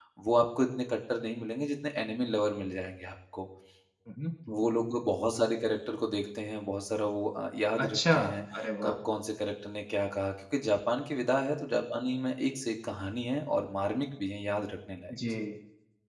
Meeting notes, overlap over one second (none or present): none